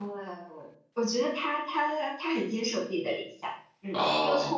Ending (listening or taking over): listening